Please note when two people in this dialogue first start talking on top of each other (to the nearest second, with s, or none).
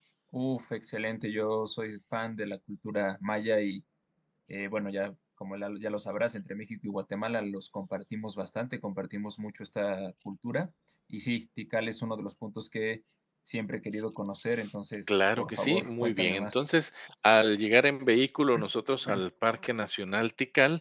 15 s